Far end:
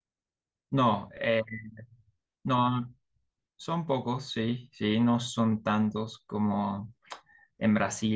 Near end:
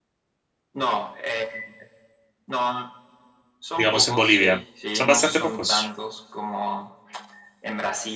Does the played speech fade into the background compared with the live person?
Yes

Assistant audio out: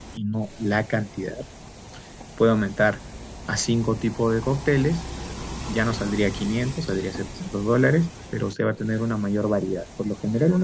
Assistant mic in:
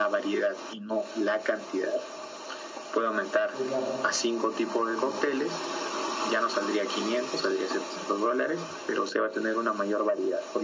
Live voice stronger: No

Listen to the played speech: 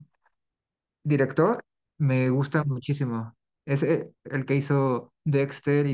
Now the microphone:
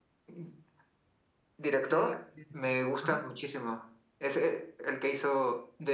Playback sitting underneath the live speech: No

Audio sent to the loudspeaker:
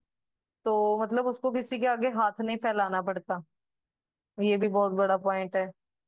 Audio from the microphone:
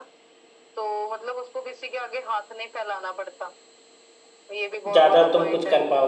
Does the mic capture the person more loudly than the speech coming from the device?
Yes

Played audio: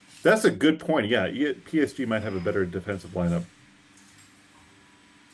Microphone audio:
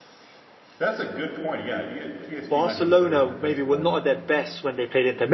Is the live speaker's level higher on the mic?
Yes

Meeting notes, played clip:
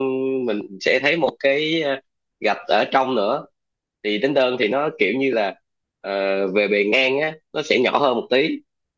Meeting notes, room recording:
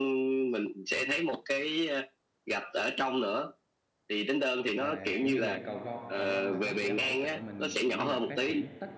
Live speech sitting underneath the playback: Yes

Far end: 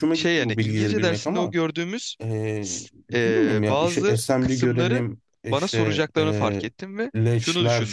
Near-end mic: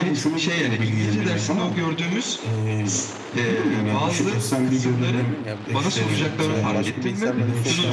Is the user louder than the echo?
No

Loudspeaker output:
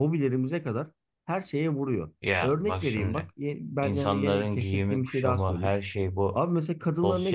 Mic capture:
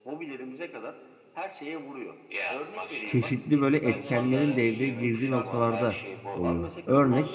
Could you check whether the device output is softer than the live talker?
Yes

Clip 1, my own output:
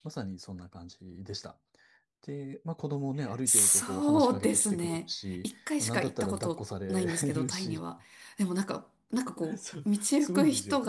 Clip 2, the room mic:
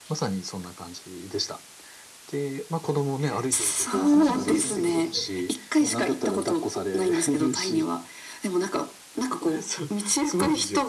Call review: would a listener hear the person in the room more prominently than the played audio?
No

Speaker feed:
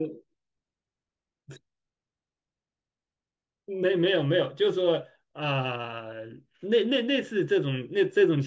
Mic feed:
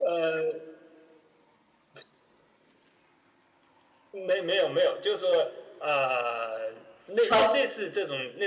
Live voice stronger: Yes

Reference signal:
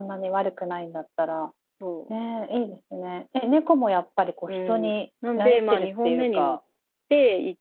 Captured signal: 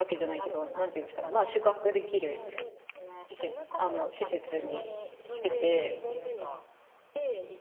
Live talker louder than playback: Yes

